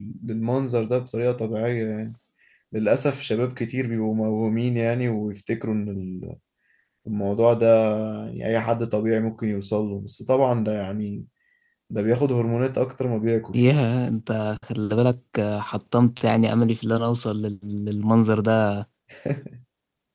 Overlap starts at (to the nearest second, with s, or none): none